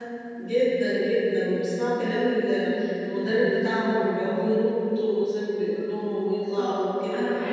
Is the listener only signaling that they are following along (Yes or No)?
No